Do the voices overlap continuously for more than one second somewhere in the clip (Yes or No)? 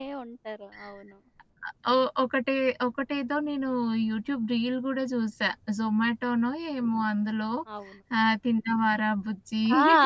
No